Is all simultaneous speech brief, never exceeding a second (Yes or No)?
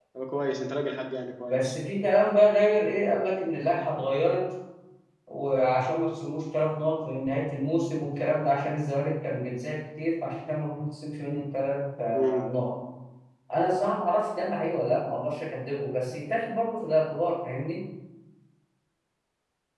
Yes